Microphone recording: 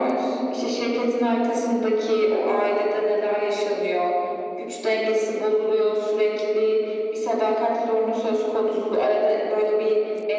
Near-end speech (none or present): none